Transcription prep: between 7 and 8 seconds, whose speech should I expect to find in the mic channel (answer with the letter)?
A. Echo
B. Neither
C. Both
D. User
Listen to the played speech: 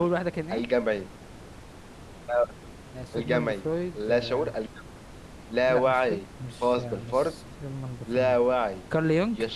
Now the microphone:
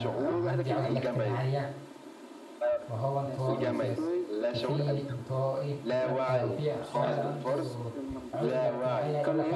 C